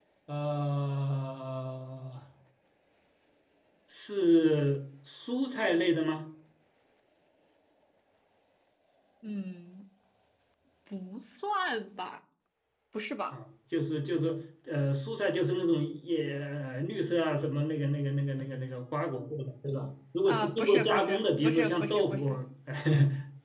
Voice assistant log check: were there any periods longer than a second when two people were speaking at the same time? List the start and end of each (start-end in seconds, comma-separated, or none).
20.2-22.3